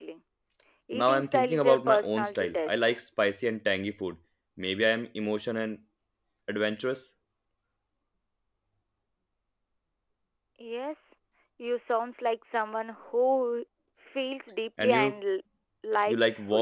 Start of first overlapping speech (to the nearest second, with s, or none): 1 s